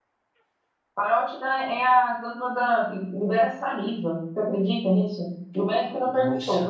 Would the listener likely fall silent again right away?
Yes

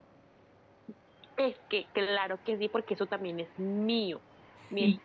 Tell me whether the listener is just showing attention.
Yes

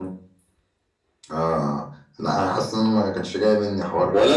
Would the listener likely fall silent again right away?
No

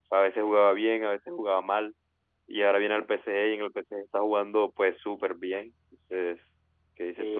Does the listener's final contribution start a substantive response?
Yes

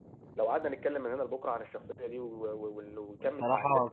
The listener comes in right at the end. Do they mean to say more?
Yes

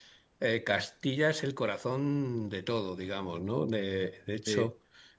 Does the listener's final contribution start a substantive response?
Yes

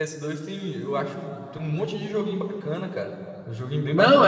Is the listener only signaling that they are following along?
No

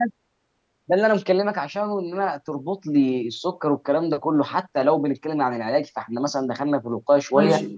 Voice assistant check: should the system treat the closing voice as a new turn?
Yes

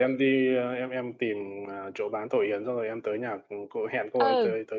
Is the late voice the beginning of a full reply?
Yes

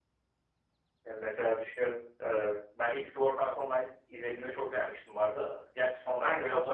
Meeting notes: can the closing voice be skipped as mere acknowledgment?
No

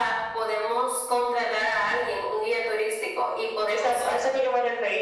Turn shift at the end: Yes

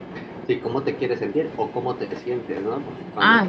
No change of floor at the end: Yes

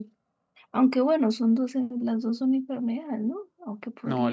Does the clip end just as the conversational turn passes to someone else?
Yes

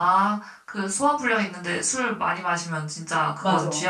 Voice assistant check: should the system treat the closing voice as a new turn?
Yes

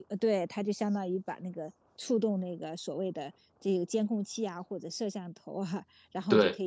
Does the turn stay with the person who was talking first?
Yes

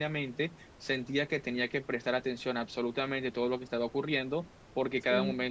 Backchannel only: Yes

